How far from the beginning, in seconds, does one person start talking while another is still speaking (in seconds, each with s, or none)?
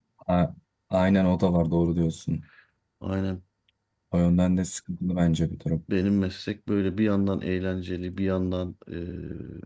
none